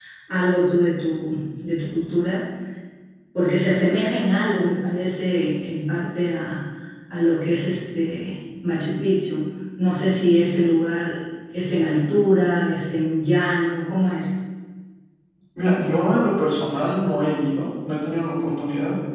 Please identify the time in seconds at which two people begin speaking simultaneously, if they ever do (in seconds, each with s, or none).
none